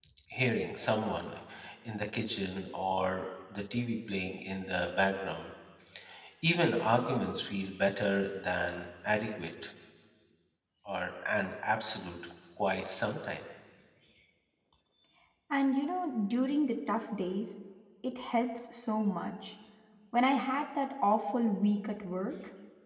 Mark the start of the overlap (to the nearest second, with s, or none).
none